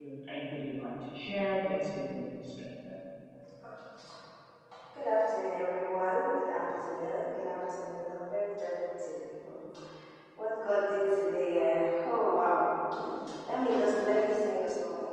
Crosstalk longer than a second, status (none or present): none